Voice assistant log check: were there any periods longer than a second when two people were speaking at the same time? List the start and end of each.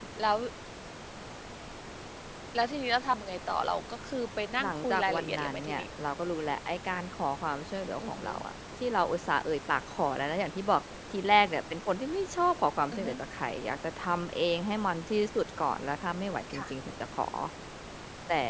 4.6-5.8

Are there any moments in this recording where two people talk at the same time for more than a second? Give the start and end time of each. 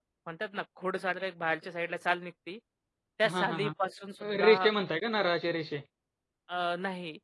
none

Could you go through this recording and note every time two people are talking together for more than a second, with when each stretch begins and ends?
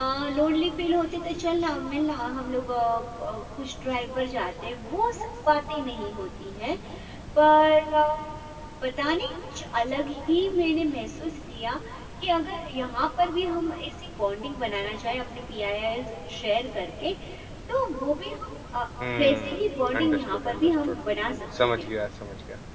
19.2-21.0

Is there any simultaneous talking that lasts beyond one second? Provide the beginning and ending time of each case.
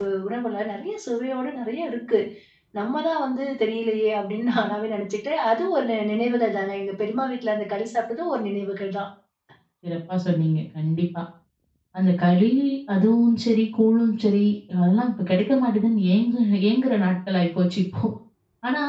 none

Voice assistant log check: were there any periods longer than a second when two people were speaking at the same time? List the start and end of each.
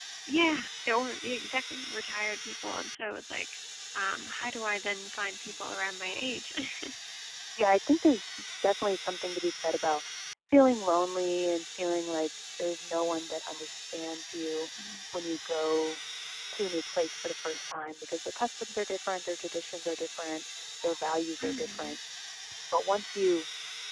none

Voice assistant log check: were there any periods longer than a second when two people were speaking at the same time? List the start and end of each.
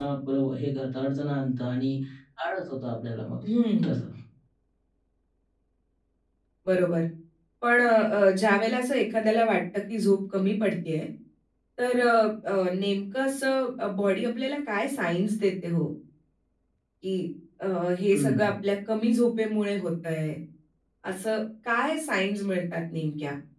none

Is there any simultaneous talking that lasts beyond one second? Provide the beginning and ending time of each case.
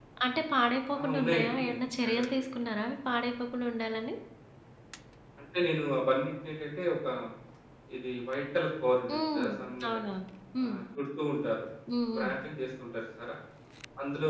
1.0-2.2

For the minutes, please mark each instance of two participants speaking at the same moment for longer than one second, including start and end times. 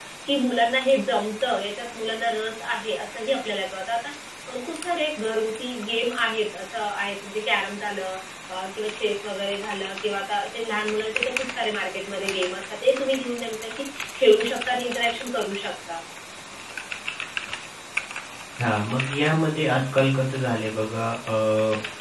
none

